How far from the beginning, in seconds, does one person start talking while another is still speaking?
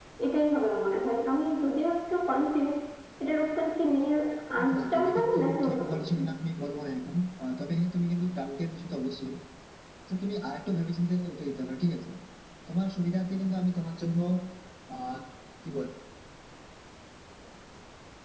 4.6 s

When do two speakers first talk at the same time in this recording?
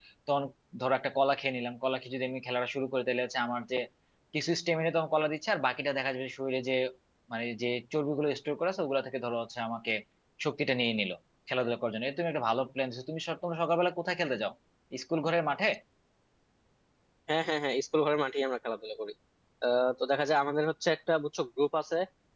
none

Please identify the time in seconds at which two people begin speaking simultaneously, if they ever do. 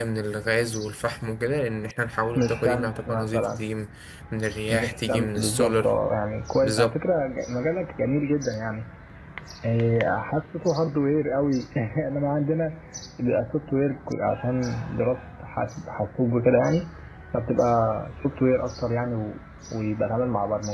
2.4 s

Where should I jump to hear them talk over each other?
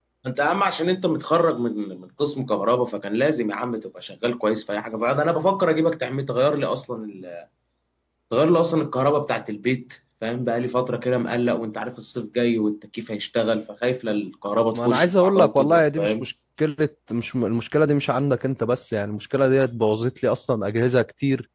14.7 s

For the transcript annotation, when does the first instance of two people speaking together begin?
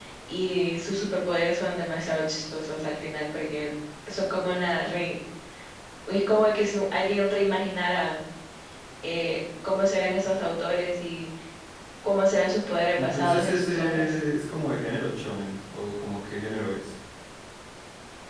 12.9 s

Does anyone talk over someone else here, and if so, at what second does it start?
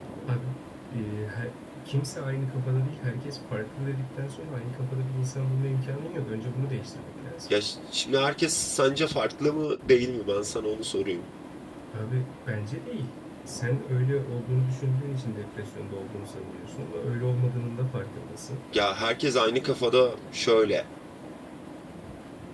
none

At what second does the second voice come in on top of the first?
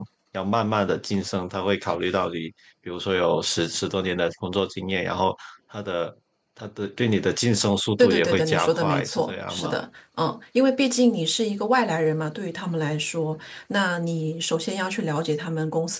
8.0 s

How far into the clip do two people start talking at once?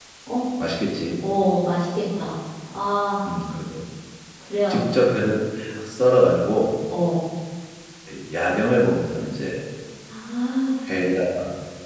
none

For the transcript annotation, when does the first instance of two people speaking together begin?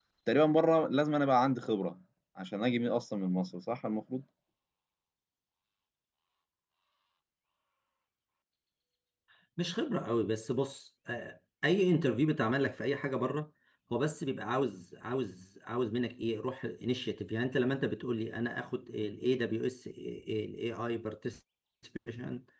none

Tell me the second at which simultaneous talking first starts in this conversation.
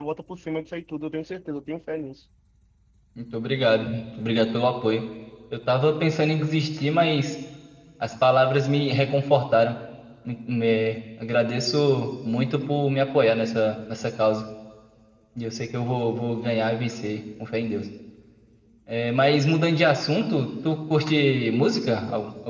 none

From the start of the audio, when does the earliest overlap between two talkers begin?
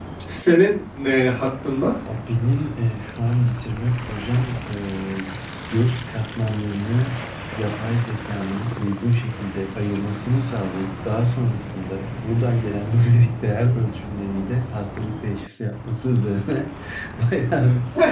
none

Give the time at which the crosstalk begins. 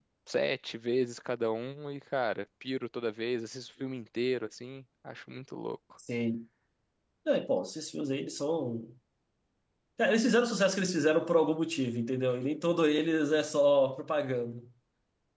none

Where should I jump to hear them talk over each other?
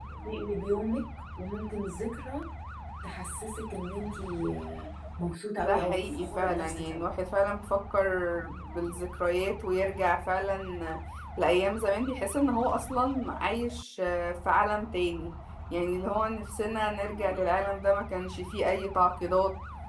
5.6 s

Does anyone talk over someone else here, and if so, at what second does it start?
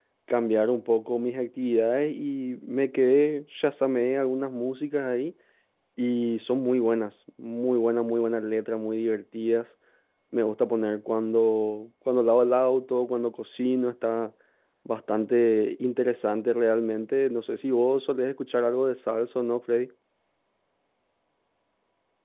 none

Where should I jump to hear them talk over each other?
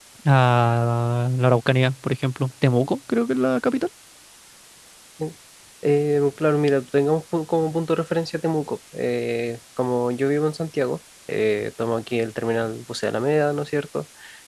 none

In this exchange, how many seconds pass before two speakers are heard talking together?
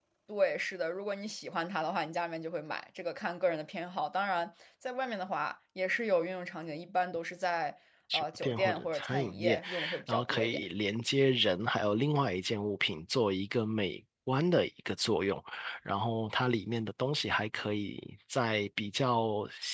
8.1 s

